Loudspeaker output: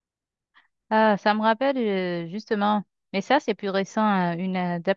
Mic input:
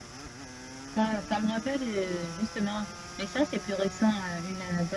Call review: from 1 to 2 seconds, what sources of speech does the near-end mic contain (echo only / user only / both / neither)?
echo only